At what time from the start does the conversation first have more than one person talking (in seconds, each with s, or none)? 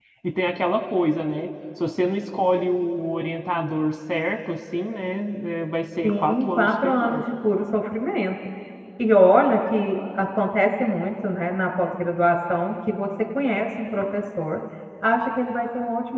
6.0 s